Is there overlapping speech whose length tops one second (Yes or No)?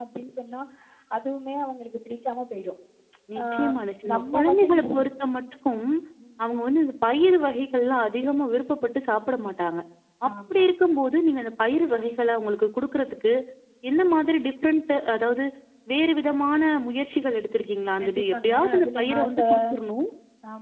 Yes